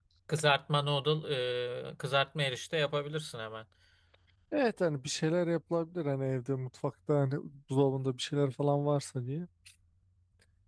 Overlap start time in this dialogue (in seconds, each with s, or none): none